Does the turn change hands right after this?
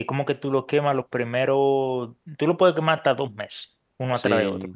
No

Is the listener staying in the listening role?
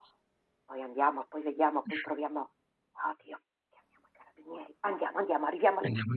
No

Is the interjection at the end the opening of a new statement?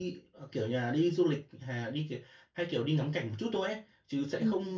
No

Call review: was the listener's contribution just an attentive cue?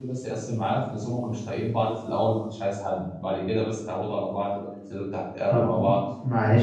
No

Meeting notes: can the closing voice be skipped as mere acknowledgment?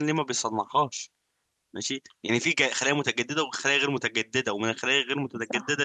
Yes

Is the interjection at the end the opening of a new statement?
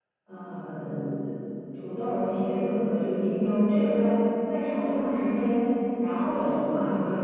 No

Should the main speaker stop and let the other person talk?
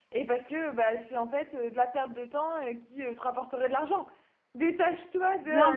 No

